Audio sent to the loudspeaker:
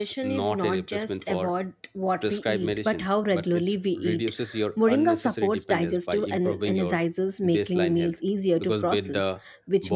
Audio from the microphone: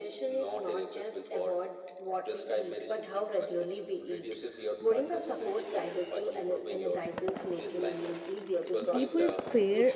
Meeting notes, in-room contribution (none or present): present